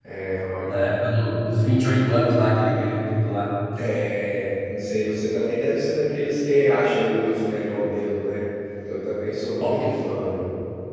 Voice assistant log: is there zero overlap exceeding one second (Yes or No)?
Yes